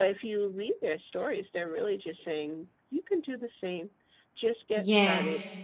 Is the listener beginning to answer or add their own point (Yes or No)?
Yes